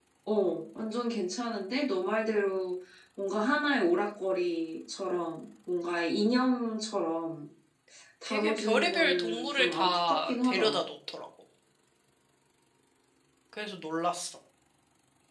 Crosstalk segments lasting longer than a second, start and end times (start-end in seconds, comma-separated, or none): 8.3-10.8